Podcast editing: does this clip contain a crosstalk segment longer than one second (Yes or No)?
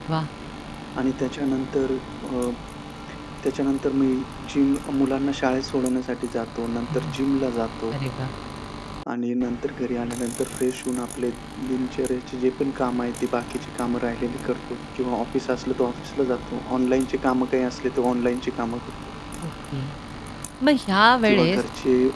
No